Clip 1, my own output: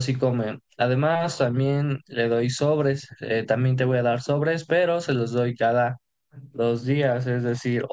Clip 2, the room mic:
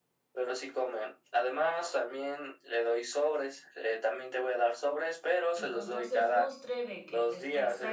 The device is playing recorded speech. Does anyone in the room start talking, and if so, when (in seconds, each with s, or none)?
5.5 s